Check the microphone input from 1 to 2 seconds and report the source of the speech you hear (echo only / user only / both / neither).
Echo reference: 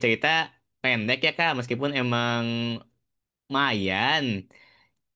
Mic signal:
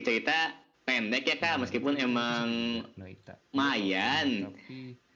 both